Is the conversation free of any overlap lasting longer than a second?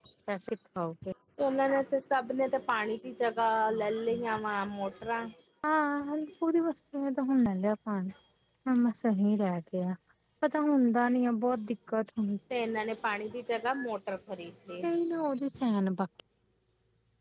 Yes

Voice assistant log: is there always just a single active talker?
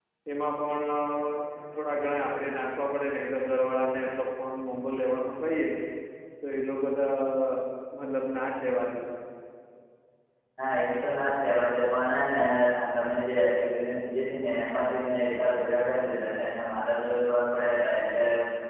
Yes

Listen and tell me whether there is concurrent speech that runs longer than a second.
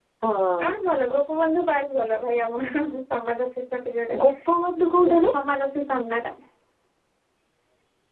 No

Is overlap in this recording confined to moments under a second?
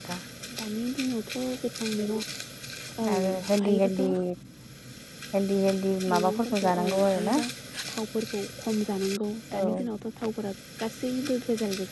No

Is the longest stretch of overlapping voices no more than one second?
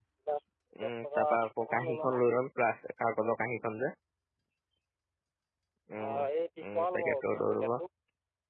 No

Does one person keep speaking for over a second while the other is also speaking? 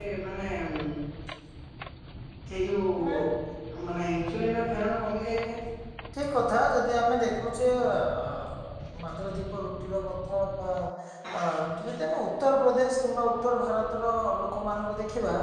No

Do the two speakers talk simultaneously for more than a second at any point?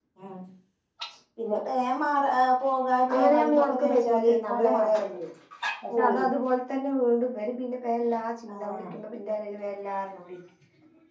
Yes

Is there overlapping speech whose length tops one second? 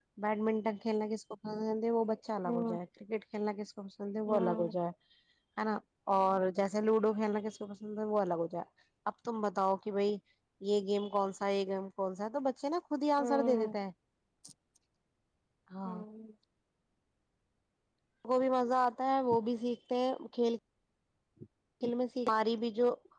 No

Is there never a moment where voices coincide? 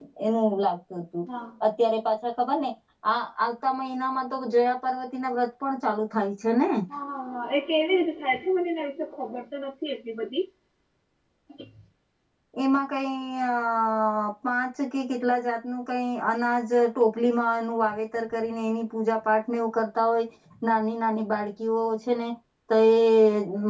Yes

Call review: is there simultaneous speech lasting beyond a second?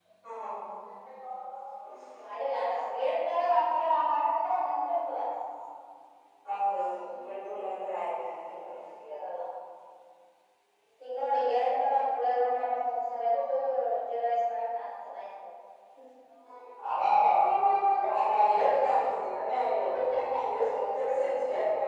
No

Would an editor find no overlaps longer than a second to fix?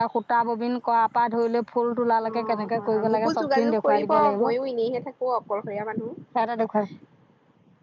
No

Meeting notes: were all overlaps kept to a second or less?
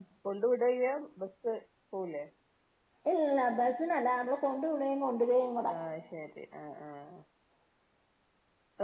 Yes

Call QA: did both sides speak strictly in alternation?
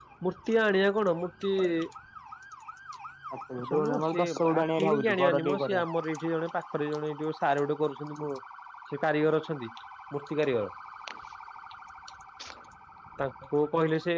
No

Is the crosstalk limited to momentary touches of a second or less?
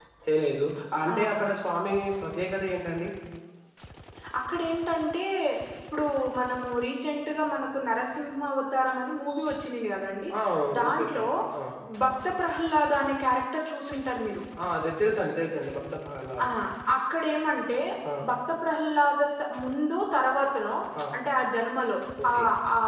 Yes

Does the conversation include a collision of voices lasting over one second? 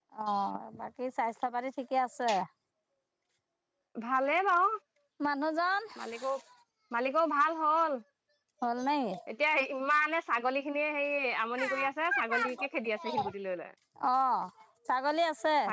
No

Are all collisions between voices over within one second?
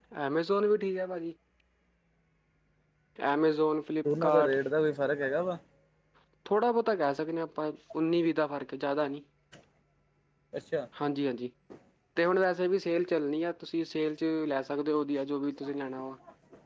Yes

